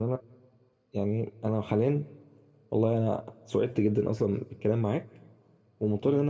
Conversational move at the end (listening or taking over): listening